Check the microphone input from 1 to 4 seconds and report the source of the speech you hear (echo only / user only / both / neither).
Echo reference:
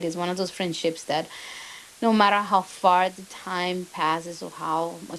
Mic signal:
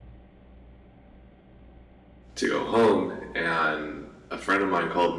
user only